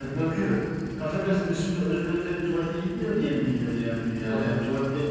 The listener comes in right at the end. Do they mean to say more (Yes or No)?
No